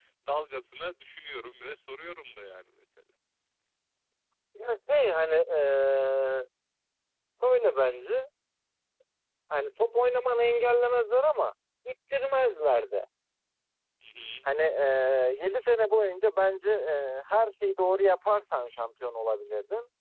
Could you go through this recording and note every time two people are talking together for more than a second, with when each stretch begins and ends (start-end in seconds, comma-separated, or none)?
none